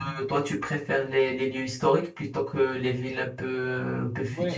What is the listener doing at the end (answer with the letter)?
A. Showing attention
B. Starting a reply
B